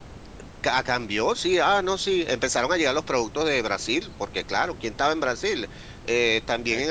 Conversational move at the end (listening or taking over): listening